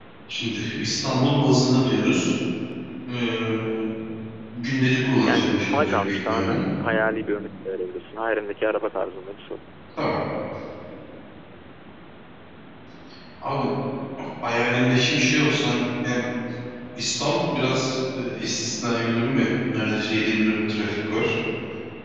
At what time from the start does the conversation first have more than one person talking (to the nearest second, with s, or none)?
5 s